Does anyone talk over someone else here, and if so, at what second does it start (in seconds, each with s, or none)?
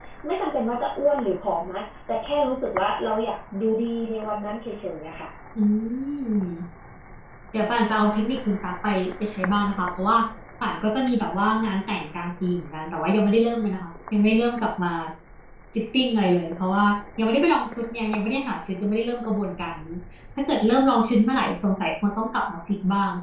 none